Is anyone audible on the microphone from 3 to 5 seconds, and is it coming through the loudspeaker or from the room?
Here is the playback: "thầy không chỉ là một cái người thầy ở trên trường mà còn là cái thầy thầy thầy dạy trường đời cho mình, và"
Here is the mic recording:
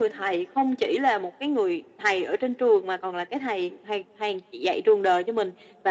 echo only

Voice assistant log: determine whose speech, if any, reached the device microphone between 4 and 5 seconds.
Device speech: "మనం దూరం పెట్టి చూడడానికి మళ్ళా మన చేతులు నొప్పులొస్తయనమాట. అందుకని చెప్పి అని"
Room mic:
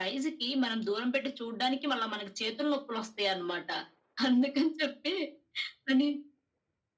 echo only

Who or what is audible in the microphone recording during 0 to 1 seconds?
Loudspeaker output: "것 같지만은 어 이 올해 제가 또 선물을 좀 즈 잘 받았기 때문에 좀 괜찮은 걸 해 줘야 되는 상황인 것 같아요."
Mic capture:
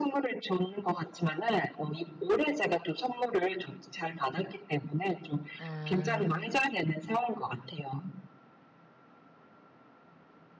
echo only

